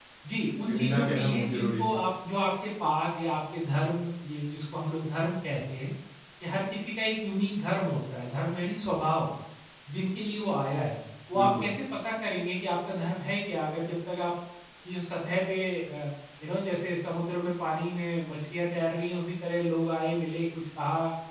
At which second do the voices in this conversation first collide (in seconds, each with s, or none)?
0.7 s